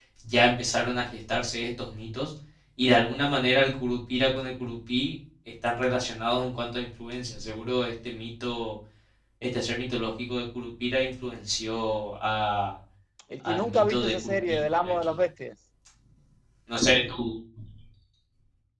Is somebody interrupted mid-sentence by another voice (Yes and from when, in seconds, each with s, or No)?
Yes, from 13.4 s